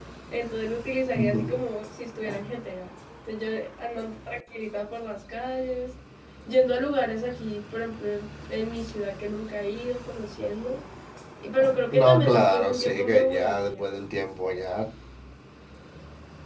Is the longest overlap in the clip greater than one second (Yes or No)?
Yes